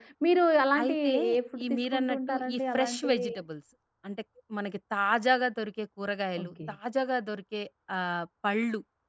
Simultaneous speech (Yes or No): Yes